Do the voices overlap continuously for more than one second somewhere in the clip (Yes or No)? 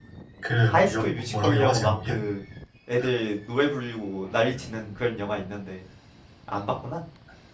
Yes